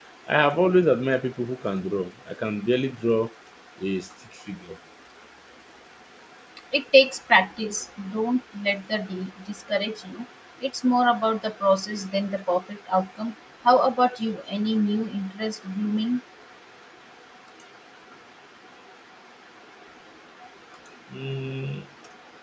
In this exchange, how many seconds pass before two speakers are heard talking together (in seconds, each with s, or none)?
none